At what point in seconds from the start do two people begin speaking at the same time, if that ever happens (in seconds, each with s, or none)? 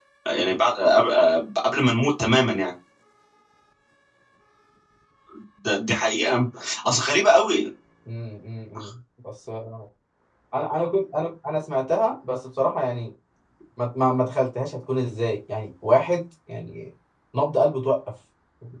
none